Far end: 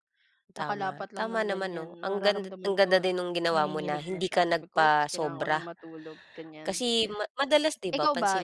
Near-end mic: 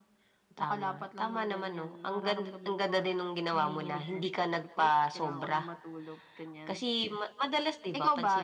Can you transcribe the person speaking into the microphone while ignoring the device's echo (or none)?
none